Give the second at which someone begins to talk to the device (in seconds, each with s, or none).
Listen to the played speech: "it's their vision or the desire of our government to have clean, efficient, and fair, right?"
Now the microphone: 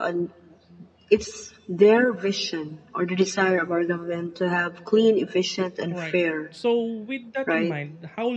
5.9 s